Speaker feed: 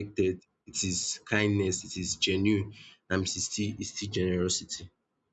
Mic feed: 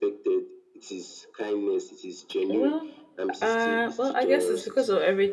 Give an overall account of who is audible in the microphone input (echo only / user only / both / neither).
both